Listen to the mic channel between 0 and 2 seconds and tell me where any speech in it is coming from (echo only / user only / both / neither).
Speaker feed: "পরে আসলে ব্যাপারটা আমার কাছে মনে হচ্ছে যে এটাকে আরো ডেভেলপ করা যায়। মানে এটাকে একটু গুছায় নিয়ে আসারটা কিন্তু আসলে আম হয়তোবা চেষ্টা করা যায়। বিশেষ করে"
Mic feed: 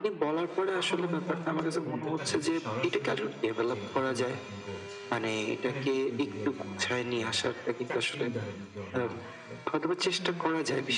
both